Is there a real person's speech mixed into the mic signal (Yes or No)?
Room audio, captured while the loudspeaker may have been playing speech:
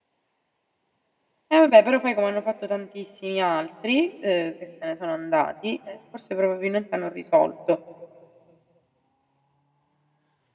Yes